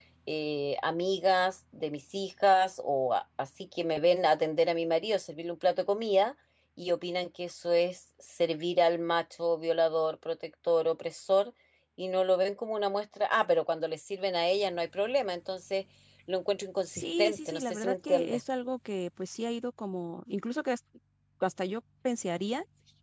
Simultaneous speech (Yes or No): Yes